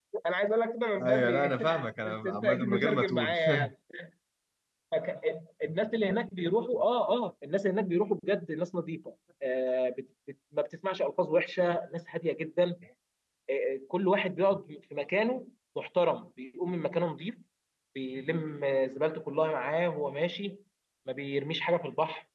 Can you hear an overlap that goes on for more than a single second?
Yes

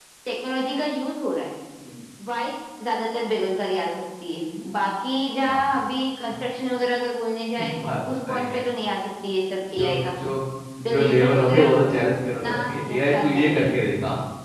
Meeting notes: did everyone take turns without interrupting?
No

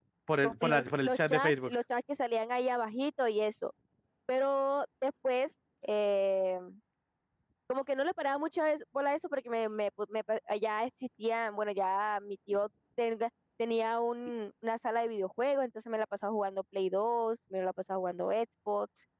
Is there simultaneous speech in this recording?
Yes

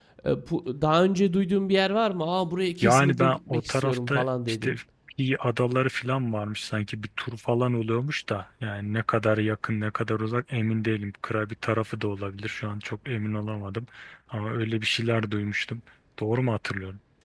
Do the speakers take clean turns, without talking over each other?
No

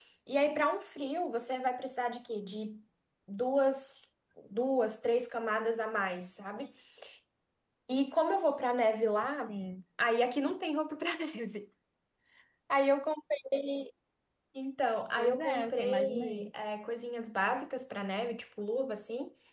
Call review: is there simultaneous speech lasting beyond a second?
Yes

